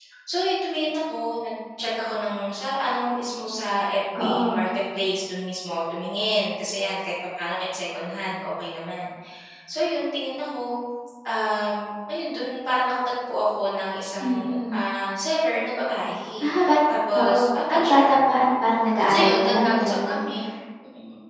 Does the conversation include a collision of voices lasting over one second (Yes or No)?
Yes